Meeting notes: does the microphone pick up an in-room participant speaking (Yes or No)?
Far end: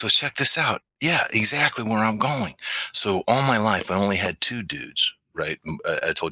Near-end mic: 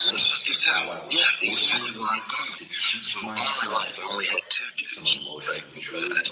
Yes